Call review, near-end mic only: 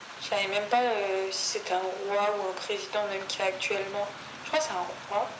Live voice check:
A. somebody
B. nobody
B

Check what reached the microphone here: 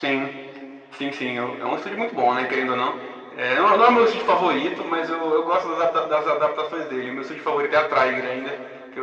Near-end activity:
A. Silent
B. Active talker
A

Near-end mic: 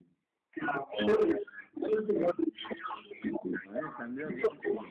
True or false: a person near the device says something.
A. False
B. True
B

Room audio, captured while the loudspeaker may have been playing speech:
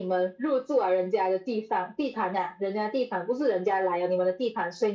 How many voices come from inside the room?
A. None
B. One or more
A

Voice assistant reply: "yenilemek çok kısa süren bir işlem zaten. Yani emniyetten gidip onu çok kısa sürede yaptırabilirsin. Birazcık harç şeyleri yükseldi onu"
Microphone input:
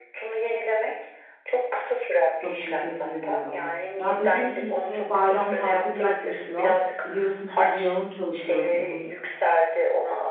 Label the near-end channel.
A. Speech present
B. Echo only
A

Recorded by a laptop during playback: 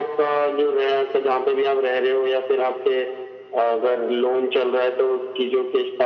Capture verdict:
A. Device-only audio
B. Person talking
A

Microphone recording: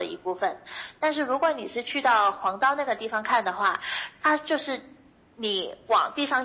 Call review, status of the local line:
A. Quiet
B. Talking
A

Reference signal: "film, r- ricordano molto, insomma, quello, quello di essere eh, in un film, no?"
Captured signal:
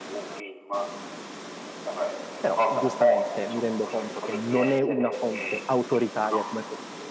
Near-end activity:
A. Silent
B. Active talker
B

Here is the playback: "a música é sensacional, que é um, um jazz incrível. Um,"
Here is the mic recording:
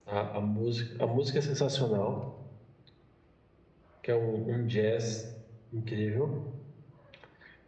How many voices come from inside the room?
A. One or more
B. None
B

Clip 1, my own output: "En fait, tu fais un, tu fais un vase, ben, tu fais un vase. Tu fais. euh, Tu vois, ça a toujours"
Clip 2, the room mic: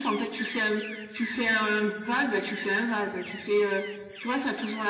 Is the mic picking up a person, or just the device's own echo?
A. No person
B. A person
A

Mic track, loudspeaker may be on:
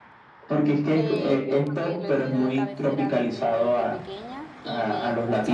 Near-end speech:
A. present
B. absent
A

